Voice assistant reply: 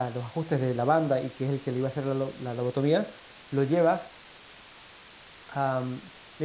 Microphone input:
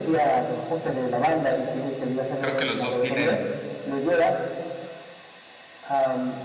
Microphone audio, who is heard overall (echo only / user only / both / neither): both